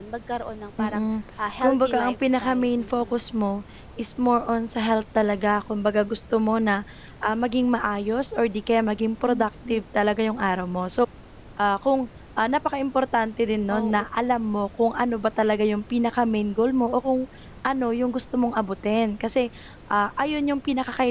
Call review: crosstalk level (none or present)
present